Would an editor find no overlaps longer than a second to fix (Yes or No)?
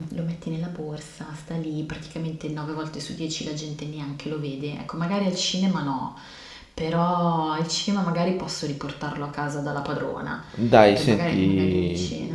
No